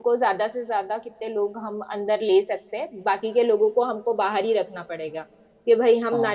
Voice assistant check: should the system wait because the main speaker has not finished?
Yes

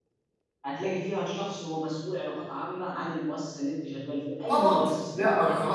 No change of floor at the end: No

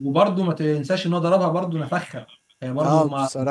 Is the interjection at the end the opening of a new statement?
Yes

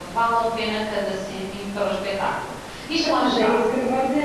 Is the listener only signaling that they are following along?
No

